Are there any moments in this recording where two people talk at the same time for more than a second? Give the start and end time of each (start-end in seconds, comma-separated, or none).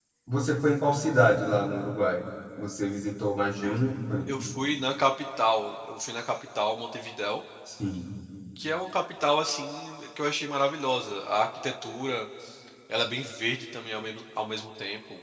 none